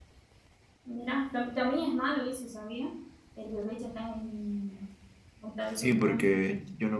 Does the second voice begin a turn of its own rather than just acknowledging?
Yes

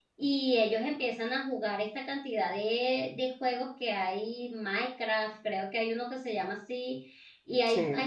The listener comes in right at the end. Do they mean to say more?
No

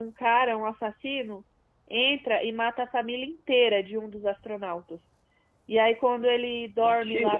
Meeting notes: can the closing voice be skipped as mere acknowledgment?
Yes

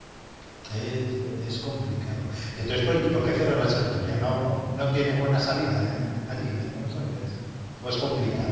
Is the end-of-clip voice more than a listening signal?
Yes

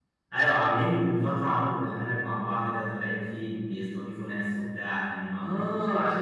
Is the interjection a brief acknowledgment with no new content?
No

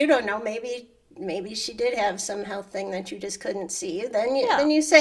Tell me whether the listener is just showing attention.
Yes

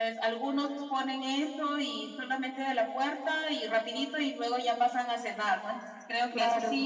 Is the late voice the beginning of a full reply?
No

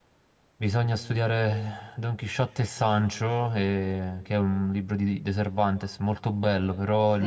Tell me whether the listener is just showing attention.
Yes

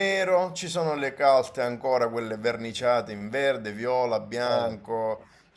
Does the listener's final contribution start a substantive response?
No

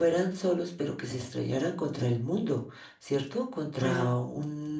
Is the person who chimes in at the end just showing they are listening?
Yes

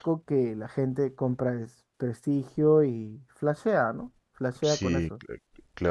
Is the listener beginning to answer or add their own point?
Yes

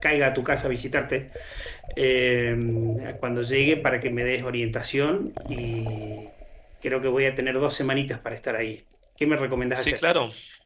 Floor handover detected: Yes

